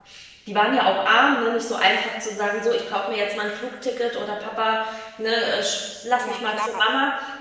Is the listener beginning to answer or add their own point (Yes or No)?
Yes